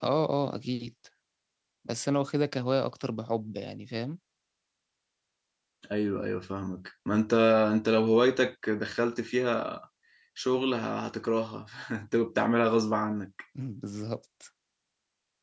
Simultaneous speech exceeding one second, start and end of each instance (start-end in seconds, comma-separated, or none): none